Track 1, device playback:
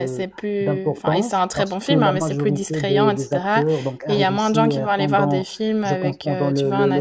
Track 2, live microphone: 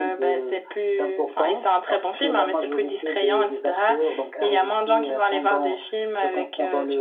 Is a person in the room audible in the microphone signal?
No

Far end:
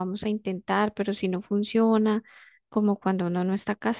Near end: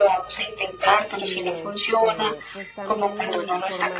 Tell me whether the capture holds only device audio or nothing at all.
No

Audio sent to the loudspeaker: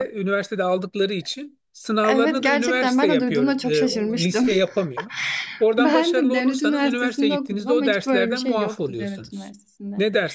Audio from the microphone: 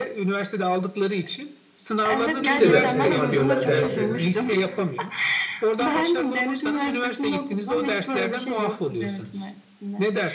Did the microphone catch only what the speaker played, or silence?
No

